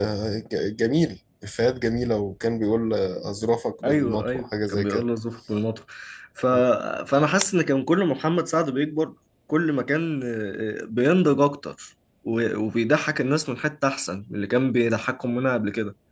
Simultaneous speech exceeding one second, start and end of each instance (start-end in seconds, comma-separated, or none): 3.8-5.0